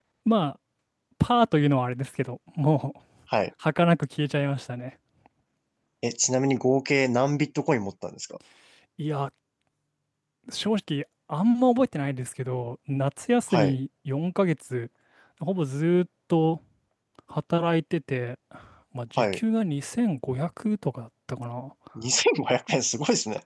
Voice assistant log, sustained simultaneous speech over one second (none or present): none